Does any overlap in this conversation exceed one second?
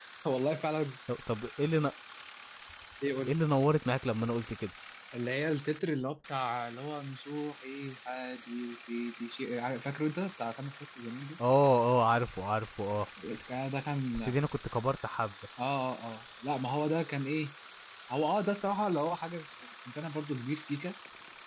No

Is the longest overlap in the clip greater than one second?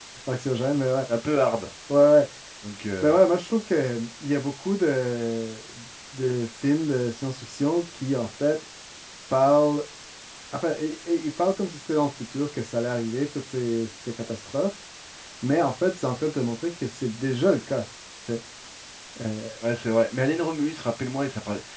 No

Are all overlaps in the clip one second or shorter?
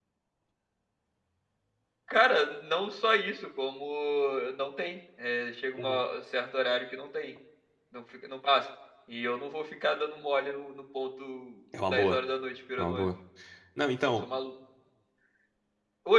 Yes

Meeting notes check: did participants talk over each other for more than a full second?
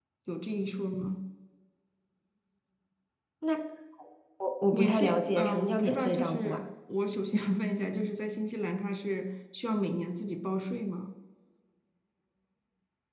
Yes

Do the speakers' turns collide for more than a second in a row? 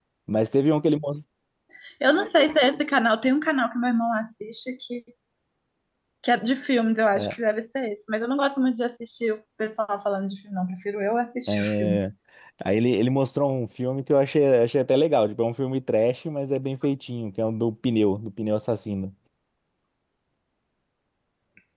No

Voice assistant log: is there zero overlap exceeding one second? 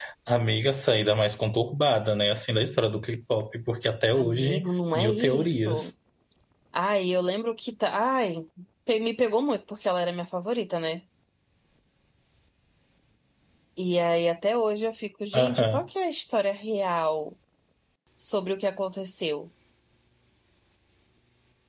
No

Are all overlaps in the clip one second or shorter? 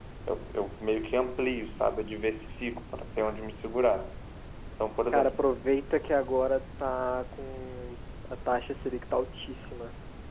Yes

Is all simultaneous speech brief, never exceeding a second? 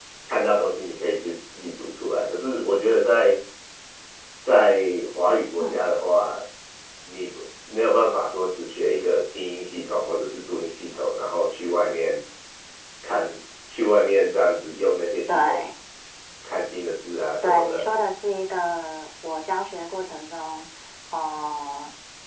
Yes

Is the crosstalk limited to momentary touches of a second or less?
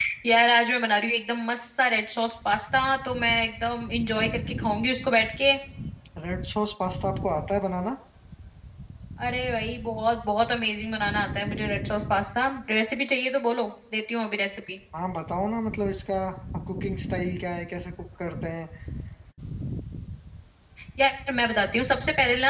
Yes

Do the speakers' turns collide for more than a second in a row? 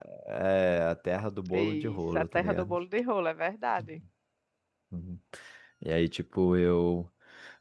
Yes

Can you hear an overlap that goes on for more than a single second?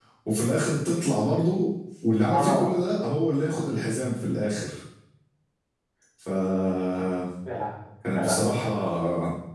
No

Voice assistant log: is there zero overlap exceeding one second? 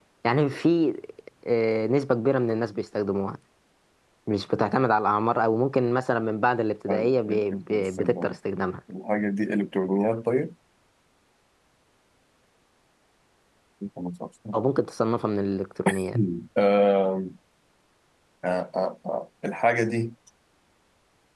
No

